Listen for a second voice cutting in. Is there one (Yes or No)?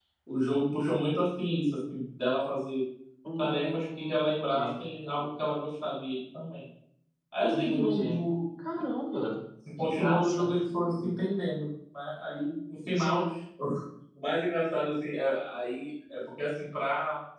Yes